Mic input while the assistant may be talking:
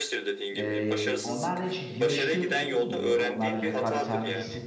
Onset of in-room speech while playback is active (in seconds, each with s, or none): 0.5 s